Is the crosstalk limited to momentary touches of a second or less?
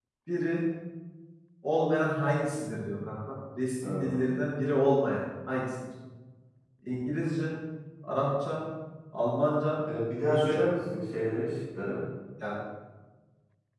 Yes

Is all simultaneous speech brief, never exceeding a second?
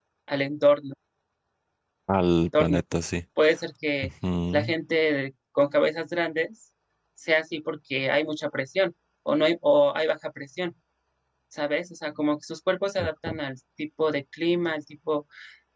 Yes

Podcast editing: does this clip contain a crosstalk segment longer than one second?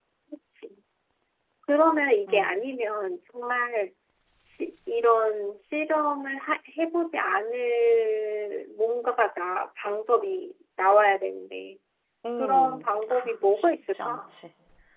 Yes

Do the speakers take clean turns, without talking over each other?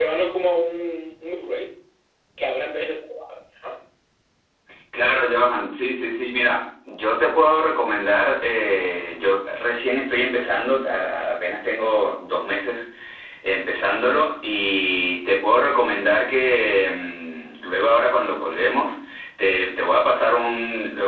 Yes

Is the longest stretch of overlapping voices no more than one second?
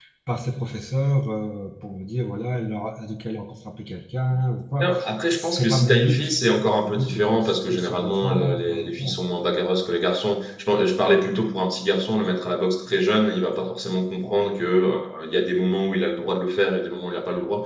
No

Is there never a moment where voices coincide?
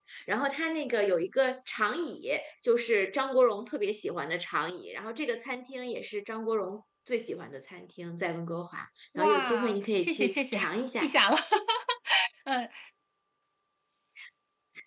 No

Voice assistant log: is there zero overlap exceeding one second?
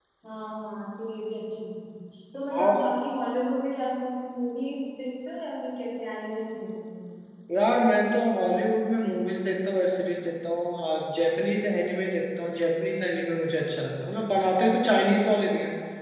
Yes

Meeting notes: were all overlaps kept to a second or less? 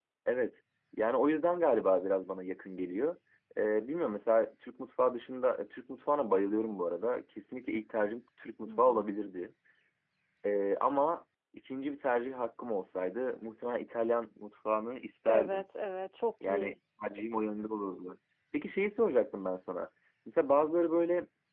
Yes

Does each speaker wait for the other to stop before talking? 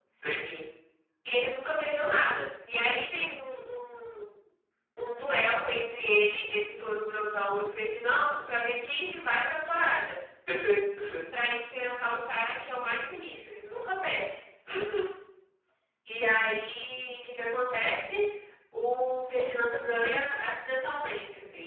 Yes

